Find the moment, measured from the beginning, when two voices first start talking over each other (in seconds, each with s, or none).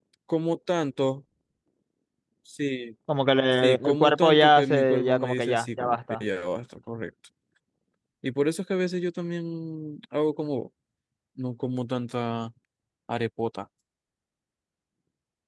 3.6 s